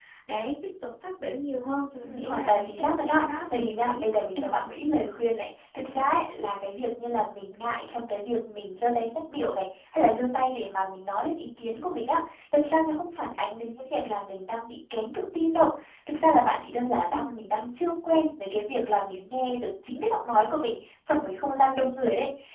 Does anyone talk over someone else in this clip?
Yes, from 1.9 s

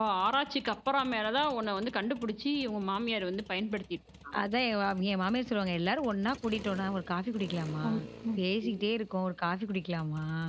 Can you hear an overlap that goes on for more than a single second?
No

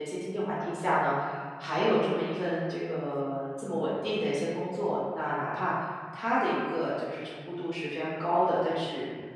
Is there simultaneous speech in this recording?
No

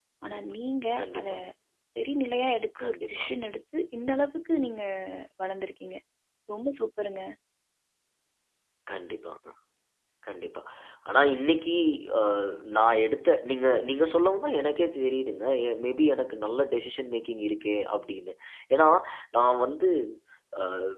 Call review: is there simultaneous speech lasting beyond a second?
No

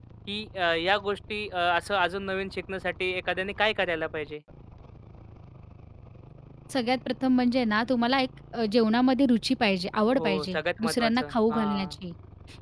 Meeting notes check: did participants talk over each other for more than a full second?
Yes, from 10.1 s

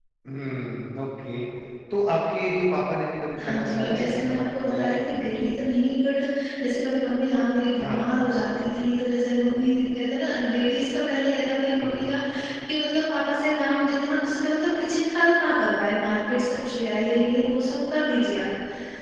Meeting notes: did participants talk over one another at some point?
Yes, from 3.4 s

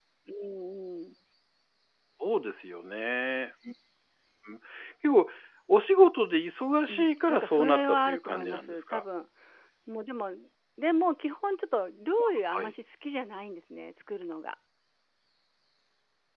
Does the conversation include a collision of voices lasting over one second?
Yes, from 6.9 s

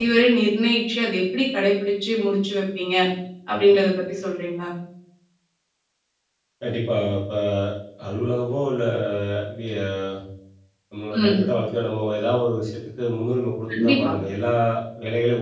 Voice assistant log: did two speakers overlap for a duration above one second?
No

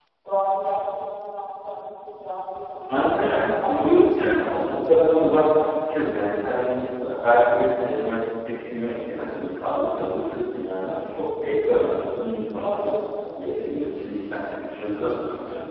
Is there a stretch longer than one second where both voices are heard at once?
Yes, from 2.9 s

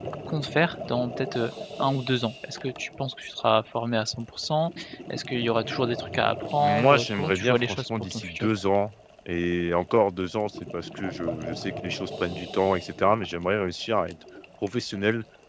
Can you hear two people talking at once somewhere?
Yes, from 6.6 s

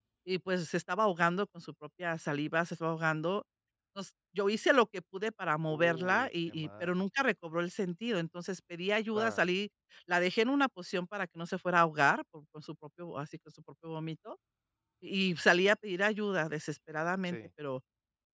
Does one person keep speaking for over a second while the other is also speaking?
Yes, from 5.7 s

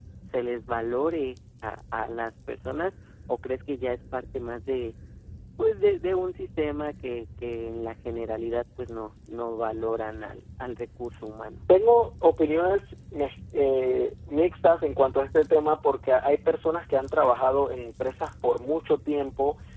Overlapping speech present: No

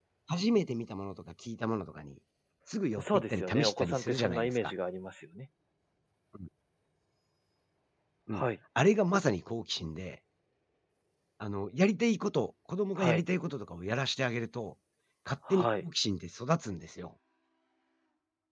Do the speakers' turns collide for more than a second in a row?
Yes, from 3.0 s

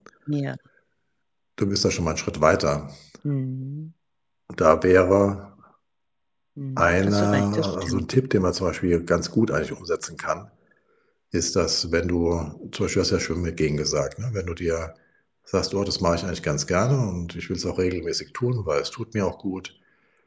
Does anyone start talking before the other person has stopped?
Yes, from 6.8 s

